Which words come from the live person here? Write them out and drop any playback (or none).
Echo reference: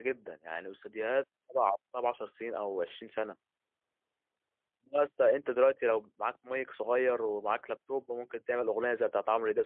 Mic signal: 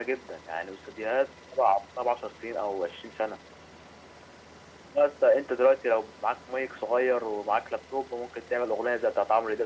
none